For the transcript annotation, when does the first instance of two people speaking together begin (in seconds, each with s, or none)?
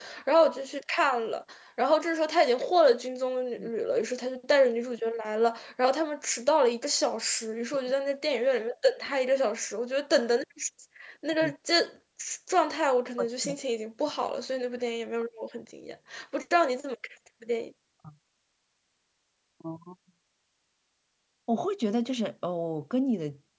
none